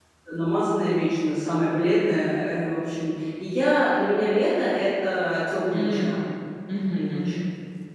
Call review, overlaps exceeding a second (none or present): none